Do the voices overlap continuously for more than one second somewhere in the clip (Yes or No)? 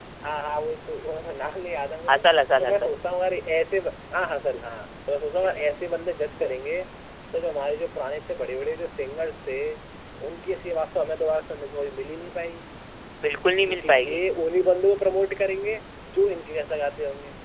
No